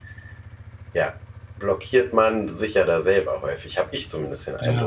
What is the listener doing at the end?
taking over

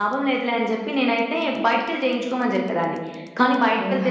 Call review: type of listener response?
listening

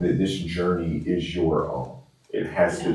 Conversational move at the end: listening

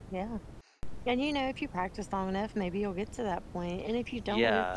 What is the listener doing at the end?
taking over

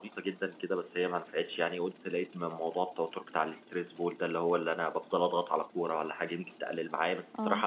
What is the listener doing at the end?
listening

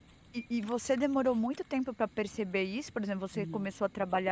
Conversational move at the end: listening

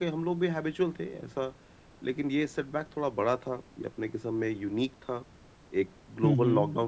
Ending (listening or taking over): listening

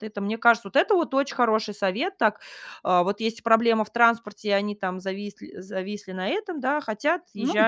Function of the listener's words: listening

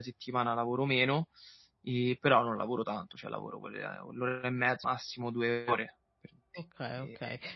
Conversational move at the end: taking over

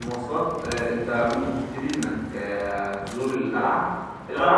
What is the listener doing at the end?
listening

